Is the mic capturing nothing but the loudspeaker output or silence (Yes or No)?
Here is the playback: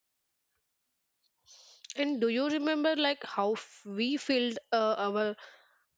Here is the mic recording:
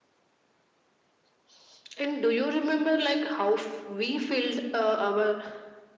Yes